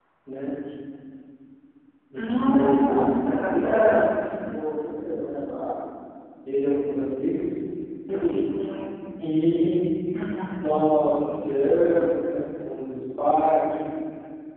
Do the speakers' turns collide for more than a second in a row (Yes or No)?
Yes